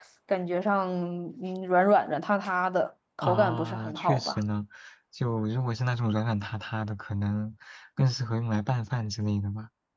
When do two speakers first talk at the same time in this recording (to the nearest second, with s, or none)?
3 s